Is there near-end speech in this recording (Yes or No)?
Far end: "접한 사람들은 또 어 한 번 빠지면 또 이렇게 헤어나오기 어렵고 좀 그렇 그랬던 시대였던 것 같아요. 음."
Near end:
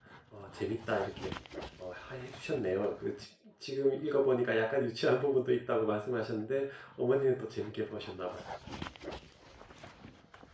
Yes